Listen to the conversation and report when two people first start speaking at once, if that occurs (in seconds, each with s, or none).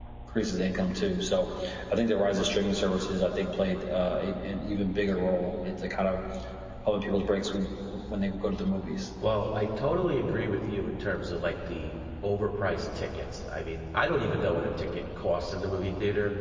none